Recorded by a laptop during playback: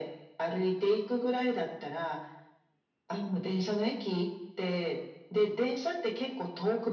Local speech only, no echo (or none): none